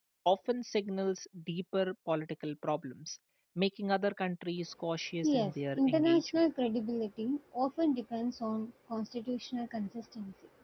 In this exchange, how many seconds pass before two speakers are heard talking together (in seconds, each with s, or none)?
5.2 s